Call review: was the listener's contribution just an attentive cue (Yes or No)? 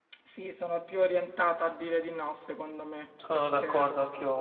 No